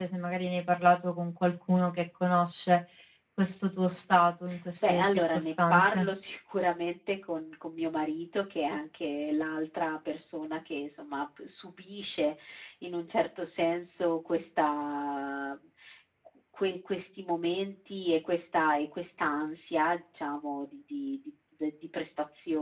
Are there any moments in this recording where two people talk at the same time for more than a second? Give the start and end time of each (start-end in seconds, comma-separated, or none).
4.8-6.1